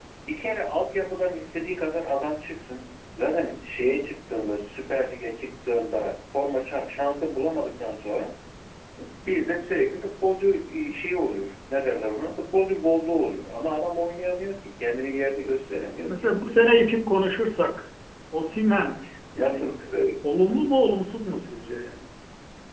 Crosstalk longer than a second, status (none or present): none